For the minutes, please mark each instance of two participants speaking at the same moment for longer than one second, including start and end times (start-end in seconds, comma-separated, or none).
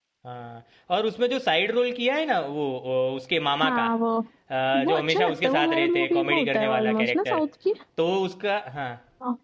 4.8-7.4